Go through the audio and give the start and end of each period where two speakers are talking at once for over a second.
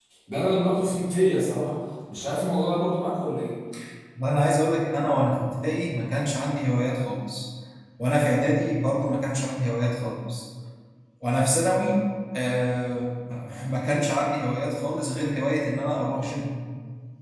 none

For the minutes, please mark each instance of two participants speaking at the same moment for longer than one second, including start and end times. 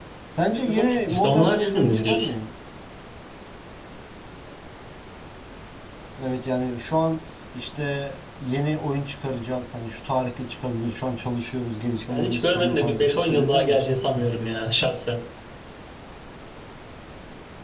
0.7-2.3, 12.1-13.8

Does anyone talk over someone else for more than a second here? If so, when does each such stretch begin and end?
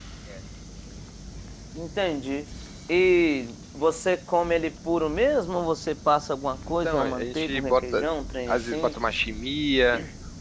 6.8-8.0

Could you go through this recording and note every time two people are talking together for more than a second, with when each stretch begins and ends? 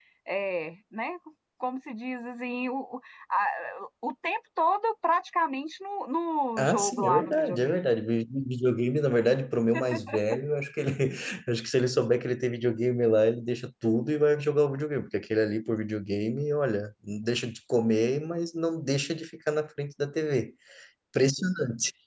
6.6-7.9

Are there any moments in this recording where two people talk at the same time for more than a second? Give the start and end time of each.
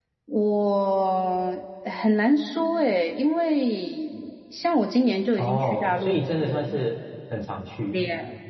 5.4-6.8

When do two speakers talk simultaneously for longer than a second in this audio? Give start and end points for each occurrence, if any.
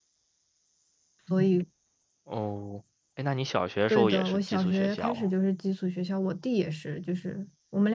3.9-5.3

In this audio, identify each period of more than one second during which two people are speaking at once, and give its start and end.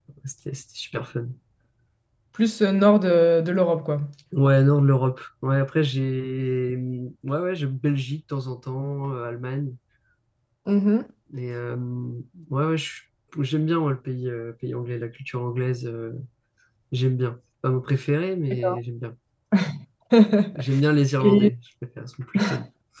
none

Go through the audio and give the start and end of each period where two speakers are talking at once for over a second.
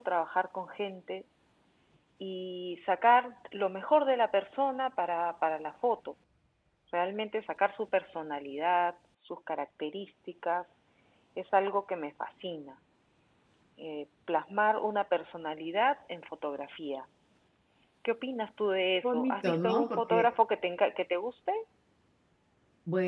19.0-20.3

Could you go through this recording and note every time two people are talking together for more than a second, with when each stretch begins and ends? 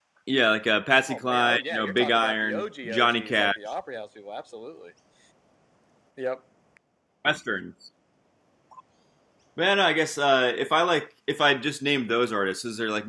1.0-3.5

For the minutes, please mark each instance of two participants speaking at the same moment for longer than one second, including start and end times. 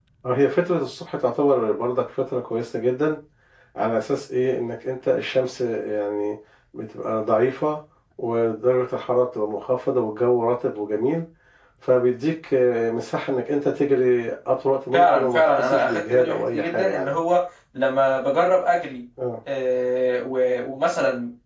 14.9-17.2

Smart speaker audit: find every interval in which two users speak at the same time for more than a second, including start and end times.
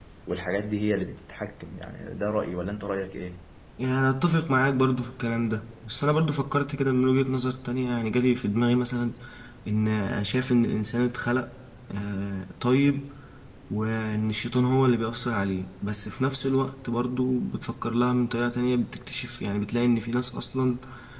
none

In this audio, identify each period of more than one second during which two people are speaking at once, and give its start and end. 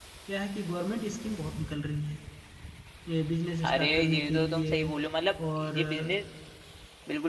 3.6-4.9

